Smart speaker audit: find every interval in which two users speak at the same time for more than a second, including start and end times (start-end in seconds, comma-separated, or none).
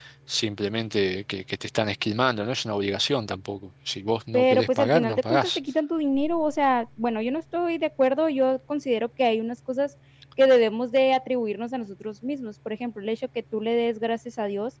4.3-5.6